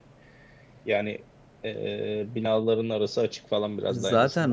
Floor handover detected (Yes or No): Yes